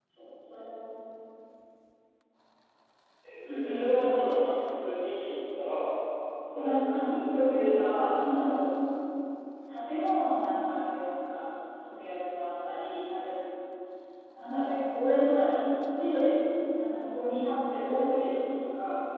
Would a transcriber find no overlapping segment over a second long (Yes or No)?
No